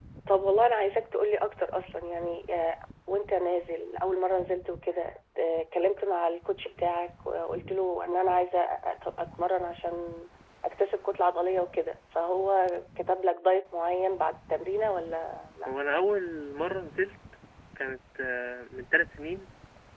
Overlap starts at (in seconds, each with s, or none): none